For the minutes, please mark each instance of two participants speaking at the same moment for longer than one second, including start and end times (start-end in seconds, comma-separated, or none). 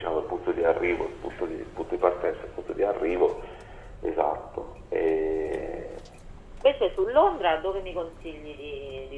none